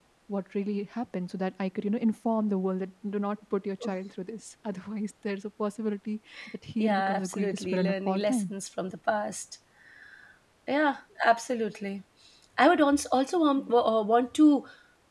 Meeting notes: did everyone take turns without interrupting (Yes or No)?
No